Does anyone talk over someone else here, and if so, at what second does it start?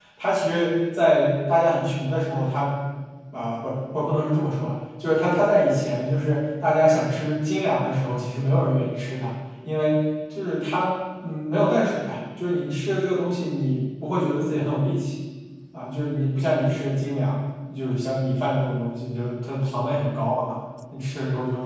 none

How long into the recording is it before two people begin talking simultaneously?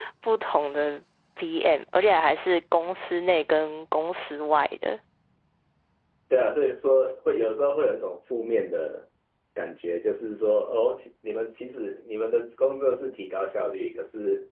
none

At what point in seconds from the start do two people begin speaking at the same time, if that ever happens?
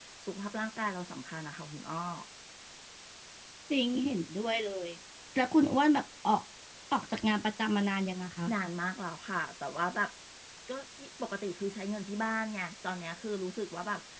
none

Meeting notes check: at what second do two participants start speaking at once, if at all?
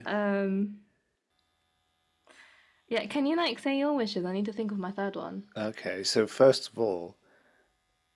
none

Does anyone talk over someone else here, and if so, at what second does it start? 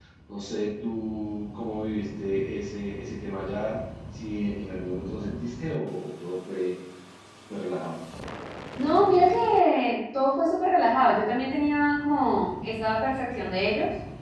none

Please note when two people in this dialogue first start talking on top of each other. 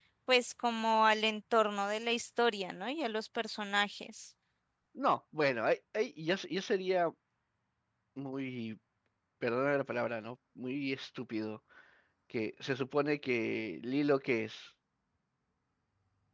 none

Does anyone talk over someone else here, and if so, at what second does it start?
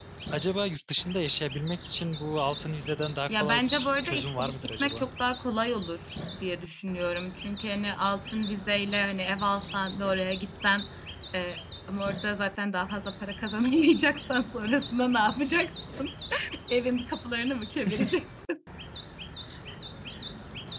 3.3 s

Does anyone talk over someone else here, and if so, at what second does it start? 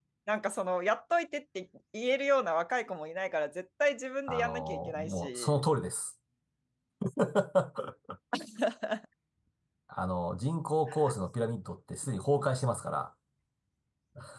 4.3 s

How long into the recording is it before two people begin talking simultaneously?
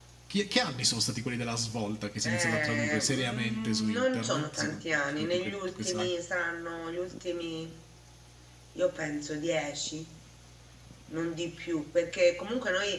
2.2 s

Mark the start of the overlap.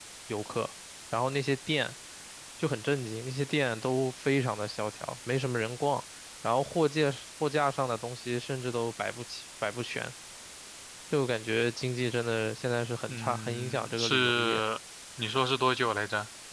13.1 s

